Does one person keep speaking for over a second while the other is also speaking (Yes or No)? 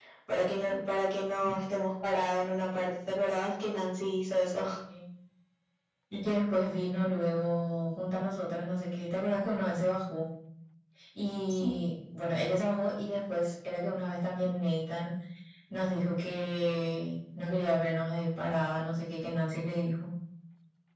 No